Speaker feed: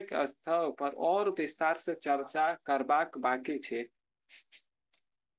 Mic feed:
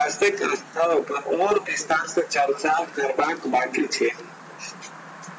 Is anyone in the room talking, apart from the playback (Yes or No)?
No